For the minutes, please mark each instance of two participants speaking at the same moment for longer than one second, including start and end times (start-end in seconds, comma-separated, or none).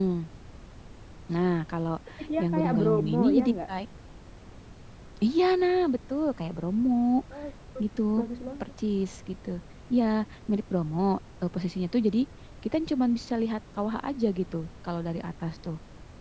2.4-3.7